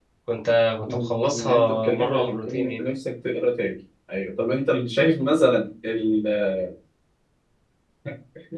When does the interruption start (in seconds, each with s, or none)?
0.9 s